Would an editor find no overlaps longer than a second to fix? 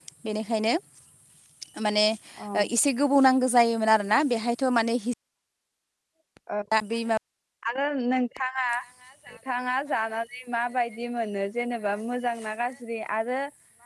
Yes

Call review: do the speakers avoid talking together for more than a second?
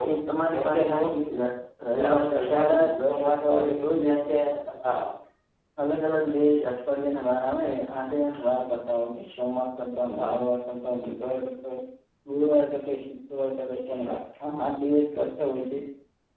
No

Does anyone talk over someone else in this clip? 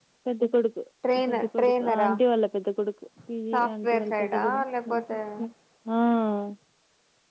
Yes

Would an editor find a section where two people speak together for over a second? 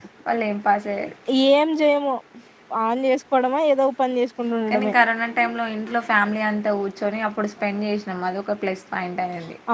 No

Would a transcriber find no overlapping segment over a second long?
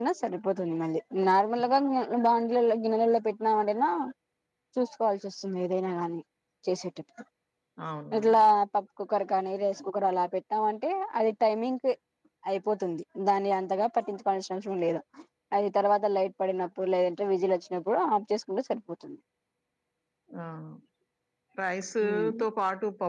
Yes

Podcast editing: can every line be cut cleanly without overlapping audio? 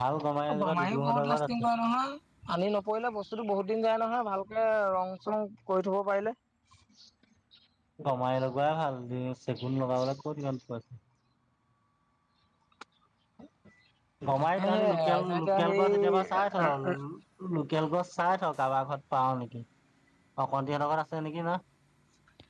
No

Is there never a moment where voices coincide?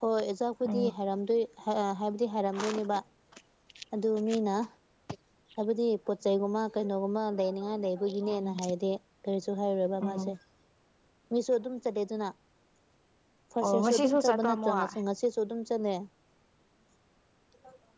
No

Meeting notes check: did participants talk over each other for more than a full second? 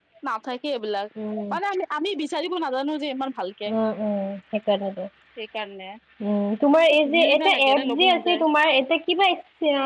Yes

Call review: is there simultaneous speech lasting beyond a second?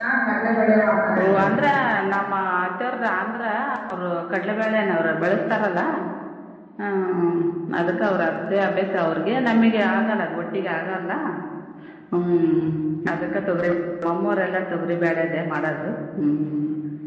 No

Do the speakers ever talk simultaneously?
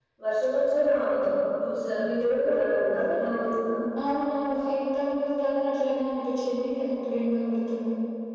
No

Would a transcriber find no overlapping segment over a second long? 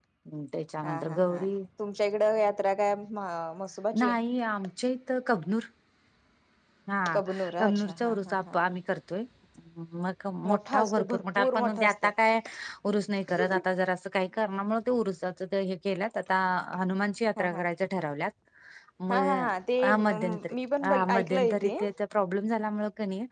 No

